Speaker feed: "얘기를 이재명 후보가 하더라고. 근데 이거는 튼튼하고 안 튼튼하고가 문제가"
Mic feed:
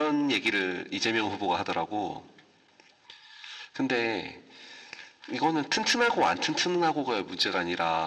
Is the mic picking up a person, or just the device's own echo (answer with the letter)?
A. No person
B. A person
A